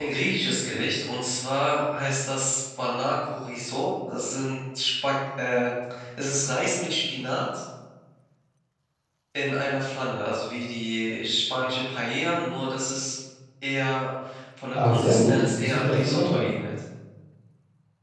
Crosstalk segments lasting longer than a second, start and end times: 14.8-16.4

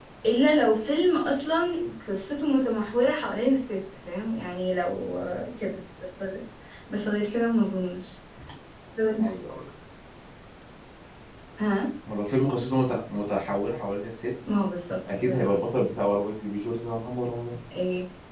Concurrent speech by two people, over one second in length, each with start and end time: none

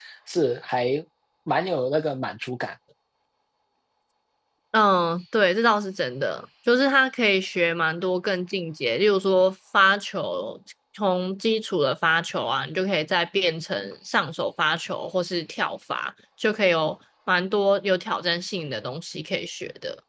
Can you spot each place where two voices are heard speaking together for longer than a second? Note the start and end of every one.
none

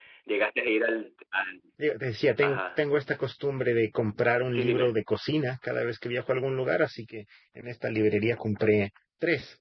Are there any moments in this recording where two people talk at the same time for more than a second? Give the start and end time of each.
none

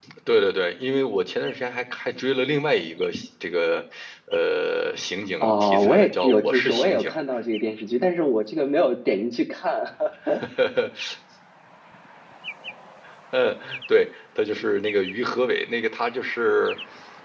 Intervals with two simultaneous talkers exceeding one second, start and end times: 5.4-7.1

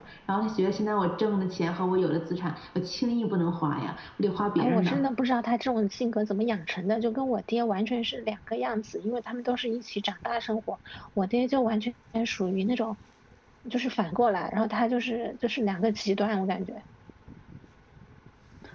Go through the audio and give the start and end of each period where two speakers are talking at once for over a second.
none

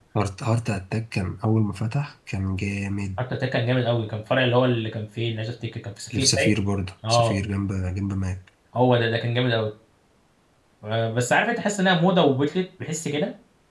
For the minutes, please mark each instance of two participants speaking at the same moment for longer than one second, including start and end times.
none

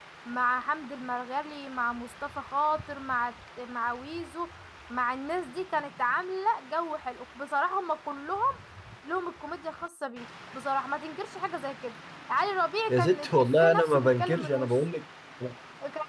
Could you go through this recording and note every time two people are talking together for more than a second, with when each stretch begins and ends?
12.9-14.7

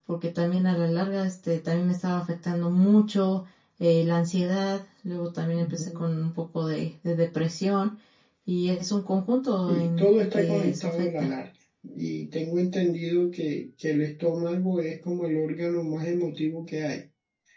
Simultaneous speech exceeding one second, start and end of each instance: 9.7-11.3

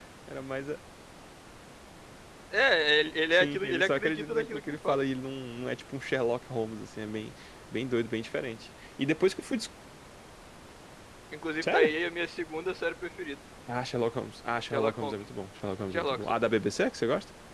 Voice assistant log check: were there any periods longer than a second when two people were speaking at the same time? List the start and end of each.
3.3-5.0

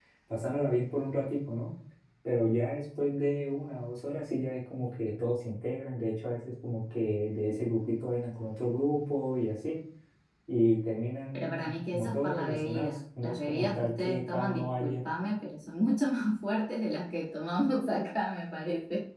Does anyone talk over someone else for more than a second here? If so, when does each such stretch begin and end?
11.3-15.0

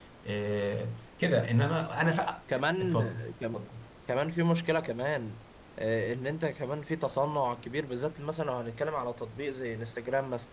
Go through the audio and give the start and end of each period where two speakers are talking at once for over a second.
none

